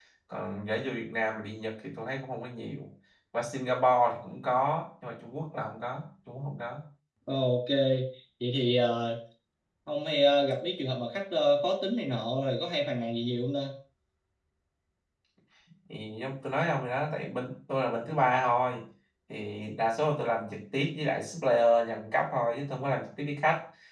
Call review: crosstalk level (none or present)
none